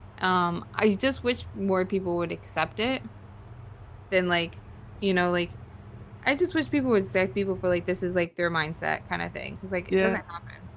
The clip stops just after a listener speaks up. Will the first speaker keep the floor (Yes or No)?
No